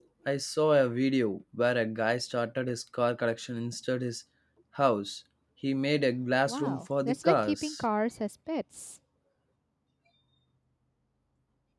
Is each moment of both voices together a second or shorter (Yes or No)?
No